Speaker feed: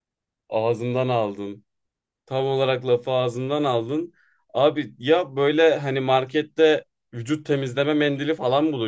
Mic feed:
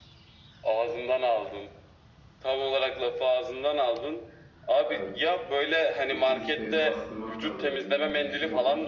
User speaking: Yes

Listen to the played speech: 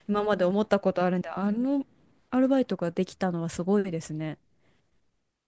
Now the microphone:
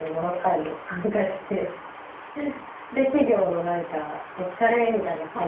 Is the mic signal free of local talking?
No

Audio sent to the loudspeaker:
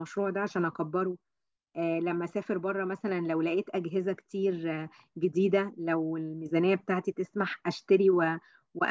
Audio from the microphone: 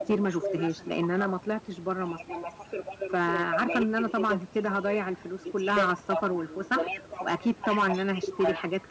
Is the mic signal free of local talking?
No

